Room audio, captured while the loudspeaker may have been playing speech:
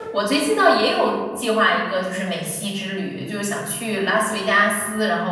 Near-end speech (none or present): present